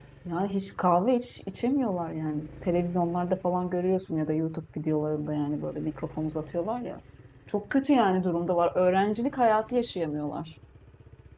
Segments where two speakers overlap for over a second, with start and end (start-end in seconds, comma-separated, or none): none